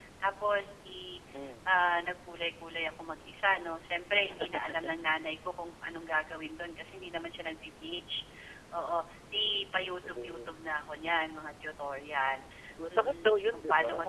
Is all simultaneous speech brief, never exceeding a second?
No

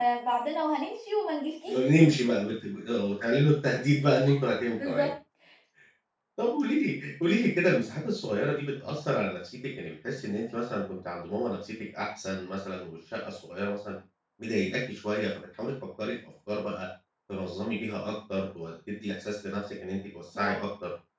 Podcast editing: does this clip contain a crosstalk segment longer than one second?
No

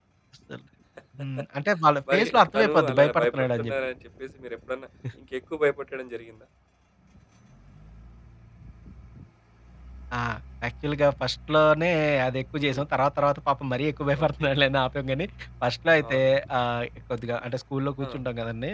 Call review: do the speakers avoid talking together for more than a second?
No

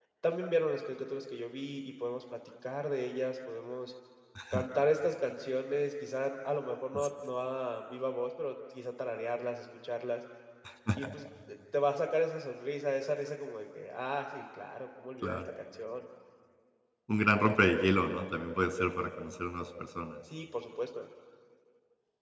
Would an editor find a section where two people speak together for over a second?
No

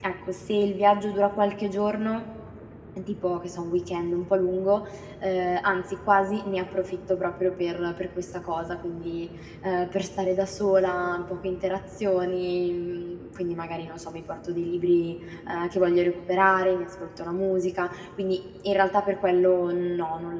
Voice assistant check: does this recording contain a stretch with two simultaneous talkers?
No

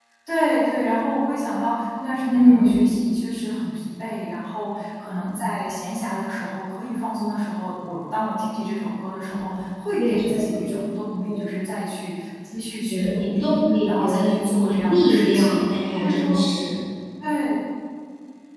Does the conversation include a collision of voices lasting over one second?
Yes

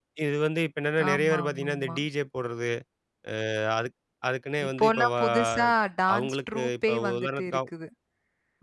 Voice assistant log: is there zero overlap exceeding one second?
No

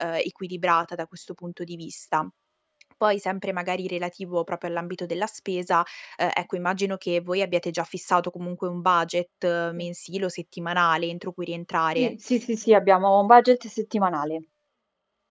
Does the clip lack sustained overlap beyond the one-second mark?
Yes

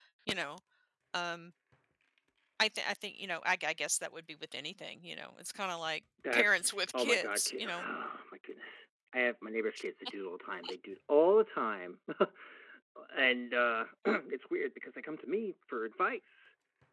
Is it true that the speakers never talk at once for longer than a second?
No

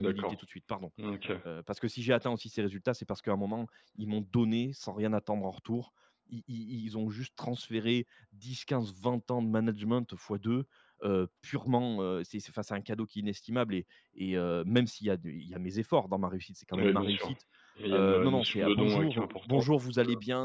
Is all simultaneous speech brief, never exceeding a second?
No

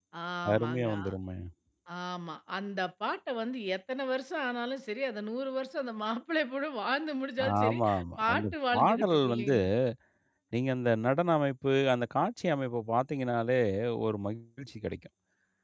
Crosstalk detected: Yes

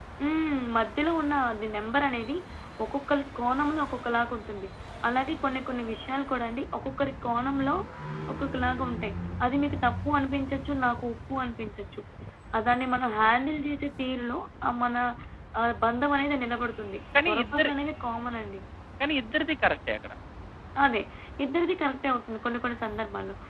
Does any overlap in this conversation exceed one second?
No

